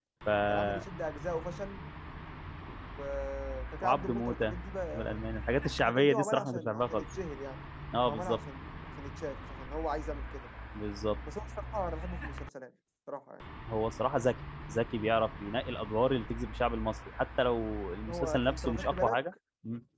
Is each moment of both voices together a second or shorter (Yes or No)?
No